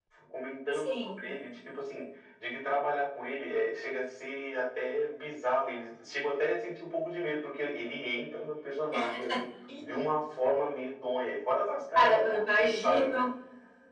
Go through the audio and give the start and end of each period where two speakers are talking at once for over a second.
12.0-13.3

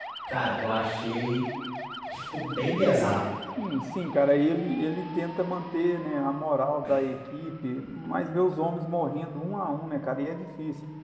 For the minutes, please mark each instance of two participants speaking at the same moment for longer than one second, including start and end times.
none

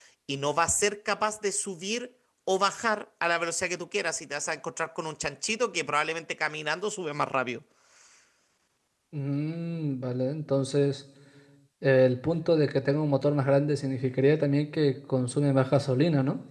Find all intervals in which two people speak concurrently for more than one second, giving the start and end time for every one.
none

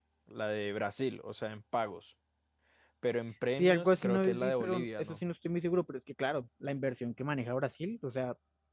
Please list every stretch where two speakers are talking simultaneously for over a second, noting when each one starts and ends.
3.6-5.2

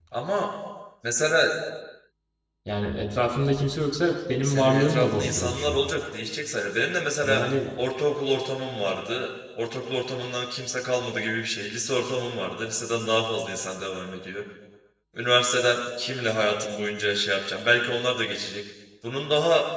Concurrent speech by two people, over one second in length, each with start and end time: 4.4-5.8

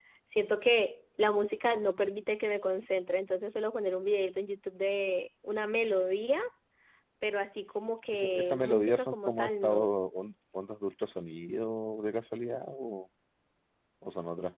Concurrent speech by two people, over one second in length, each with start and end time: 8.1-9.9

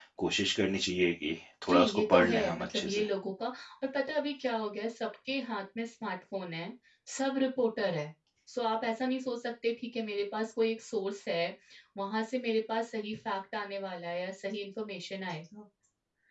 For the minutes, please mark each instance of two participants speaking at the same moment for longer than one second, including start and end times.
1.7-3.0

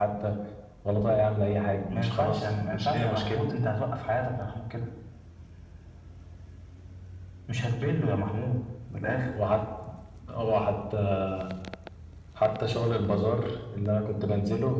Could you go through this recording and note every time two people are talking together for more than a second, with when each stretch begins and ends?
1.9-3.6

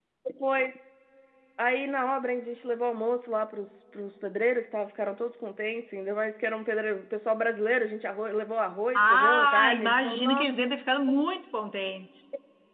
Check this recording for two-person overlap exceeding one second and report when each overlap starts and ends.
8.9-10.4

